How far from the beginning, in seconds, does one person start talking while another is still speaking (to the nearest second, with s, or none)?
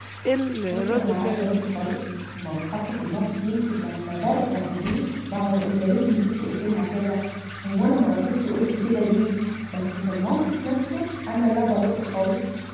1 s